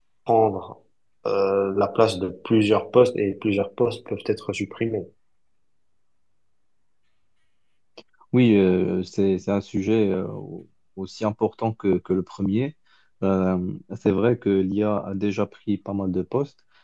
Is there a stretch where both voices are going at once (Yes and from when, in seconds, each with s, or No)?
No